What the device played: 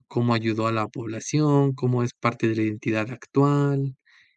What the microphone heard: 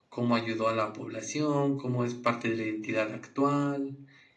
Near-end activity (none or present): none